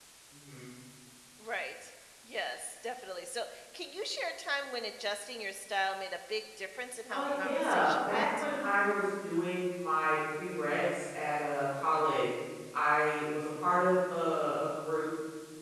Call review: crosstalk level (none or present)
present